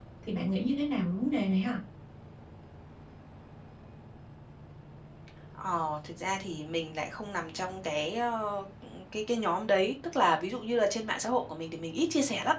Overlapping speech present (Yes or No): No